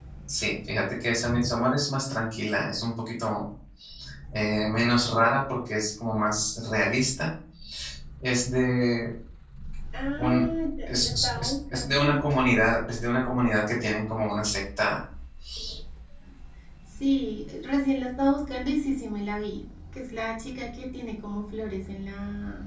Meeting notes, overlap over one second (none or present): present